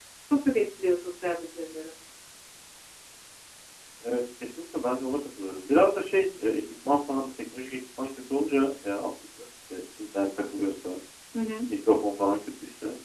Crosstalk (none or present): none